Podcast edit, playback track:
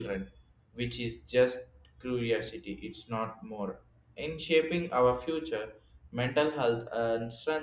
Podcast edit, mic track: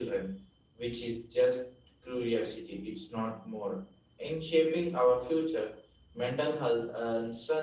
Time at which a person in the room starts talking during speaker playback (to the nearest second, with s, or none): none